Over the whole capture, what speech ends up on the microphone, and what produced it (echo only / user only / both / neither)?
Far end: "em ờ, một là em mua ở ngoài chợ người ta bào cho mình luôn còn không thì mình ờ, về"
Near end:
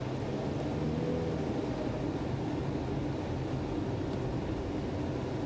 neither